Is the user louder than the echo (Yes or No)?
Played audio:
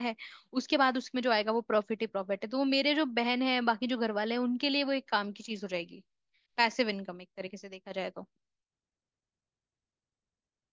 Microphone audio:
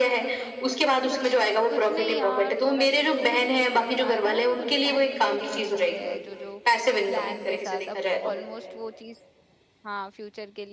No